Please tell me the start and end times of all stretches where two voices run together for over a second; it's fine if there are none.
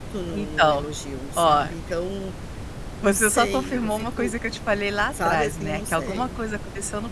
3.0-4.4, 5.1-6.4

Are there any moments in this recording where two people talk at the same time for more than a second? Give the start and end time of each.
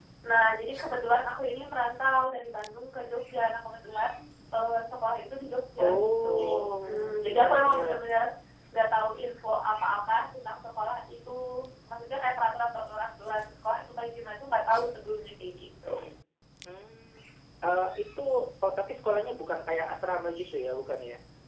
5.8-8.0

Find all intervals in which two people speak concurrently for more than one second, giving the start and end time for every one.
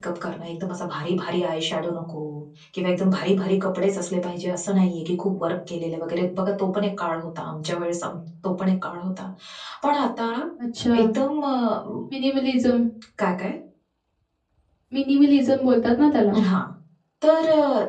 none

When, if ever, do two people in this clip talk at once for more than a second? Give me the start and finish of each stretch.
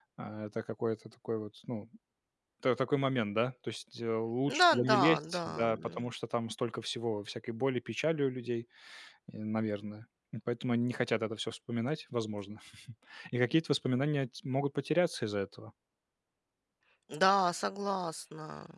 4.6-6.1

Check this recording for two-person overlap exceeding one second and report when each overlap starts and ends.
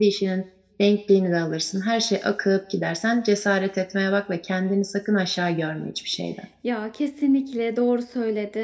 none

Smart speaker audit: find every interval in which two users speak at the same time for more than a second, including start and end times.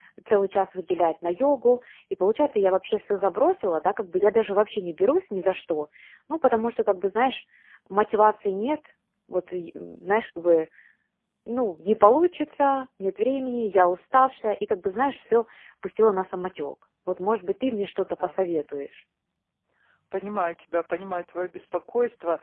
none

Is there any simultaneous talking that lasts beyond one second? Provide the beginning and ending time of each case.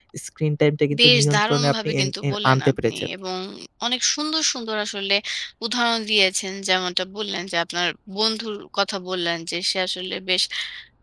1.0-3.1

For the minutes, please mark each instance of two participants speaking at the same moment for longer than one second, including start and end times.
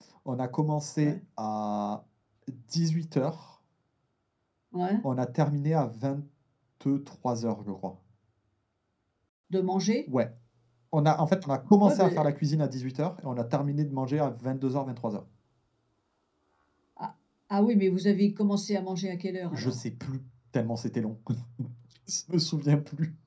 none

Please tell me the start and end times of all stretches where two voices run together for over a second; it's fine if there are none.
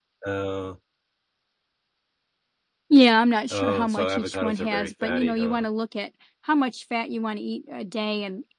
3.5-5.7

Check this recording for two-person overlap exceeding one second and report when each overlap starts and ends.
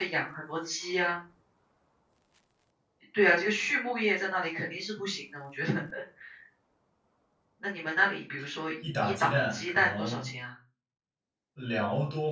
9.0-10.3

